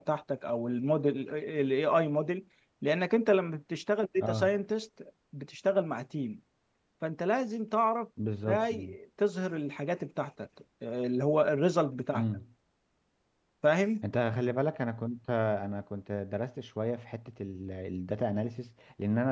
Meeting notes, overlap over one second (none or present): none